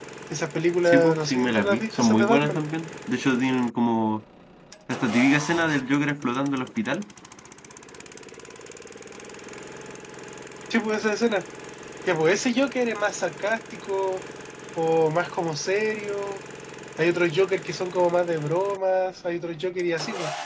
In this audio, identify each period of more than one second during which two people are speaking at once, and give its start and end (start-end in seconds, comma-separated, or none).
0.8-2.6